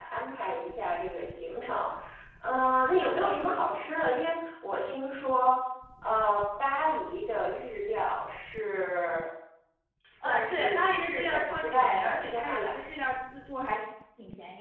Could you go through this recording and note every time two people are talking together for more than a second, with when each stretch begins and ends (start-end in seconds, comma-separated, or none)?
10.2-12.8